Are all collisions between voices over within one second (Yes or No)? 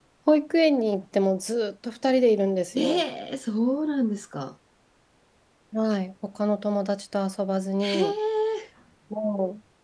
Yes